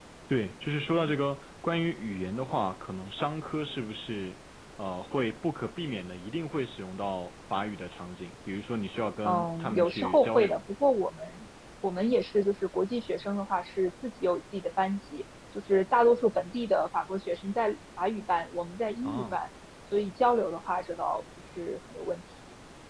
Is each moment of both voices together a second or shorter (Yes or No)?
No